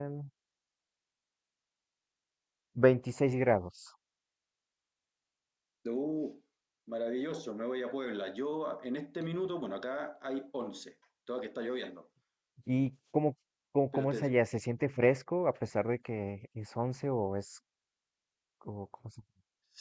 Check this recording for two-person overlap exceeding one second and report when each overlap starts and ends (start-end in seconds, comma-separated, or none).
none